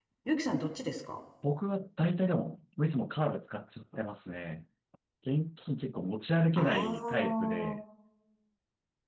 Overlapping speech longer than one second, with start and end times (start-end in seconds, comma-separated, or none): 6.6-7.8